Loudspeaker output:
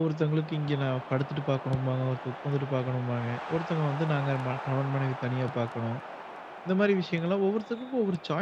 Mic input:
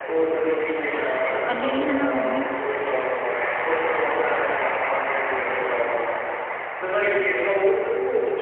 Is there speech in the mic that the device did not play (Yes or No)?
Yes